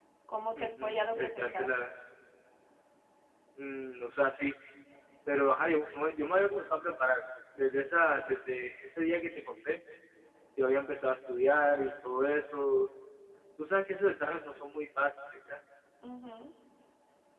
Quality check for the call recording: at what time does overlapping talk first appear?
0.6 s

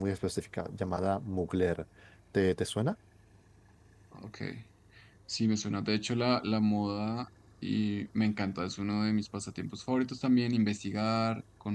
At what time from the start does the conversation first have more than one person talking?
none

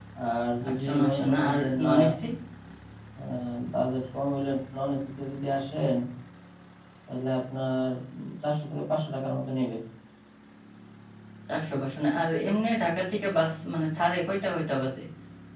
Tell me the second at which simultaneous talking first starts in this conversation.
0.7 s

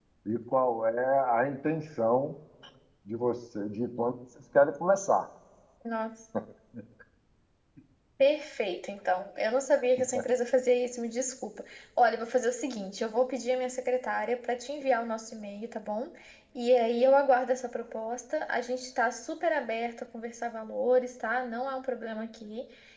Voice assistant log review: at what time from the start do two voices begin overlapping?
none

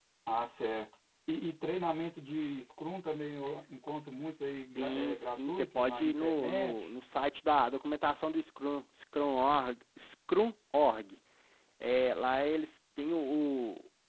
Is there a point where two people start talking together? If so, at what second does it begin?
4.8 s

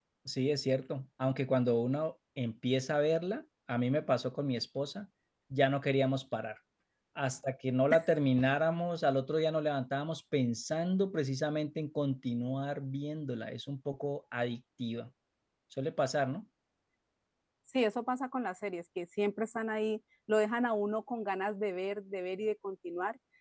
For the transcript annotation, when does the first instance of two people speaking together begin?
none

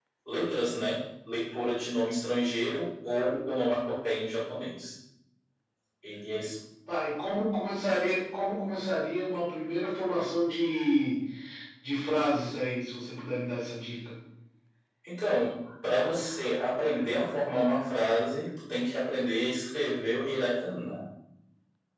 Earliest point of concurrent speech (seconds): none

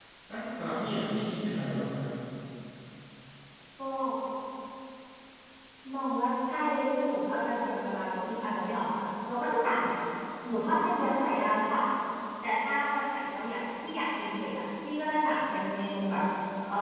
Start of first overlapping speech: none

